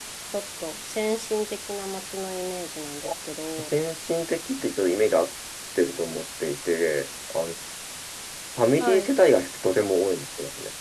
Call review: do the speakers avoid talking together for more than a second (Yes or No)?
Yes